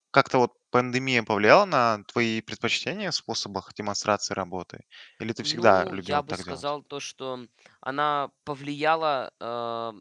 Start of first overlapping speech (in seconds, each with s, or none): 5.4 s